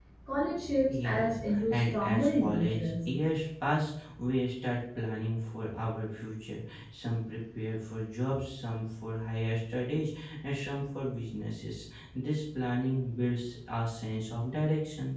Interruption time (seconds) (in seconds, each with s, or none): 0.9 s